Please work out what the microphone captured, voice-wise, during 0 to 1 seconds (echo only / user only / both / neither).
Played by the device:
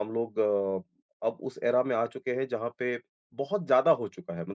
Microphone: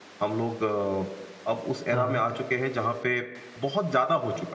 echo only